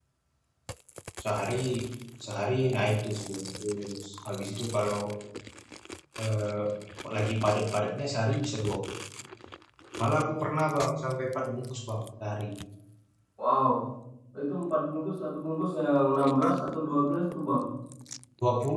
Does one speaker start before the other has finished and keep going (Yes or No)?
No